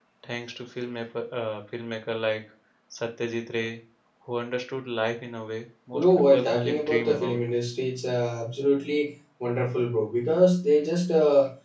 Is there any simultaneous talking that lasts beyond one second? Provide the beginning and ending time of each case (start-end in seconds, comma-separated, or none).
5.9-7.4